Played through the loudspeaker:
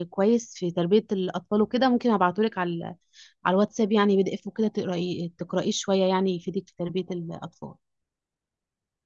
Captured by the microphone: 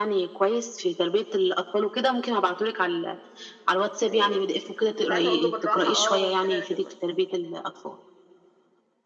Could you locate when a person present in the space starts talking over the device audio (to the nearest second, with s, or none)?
4 s